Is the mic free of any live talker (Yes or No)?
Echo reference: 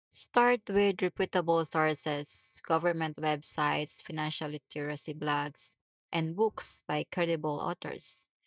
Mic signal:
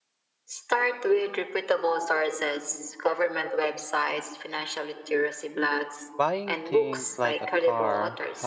No